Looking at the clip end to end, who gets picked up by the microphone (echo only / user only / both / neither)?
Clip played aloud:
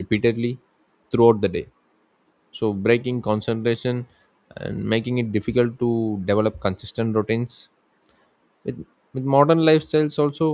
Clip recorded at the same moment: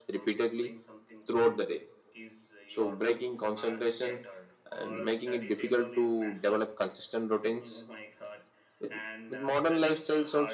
both